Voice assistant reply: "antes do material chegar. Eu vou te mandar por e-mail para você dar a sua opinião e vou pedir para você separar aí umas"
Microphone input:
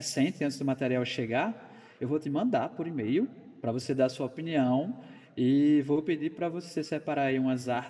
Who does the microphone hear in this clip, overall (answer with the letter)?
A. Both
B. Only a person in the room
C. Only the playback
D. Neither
C